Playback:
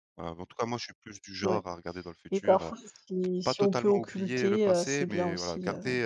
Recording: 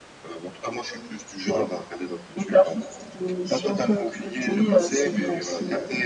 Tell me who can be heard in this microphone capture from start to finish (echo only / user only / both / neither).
echo only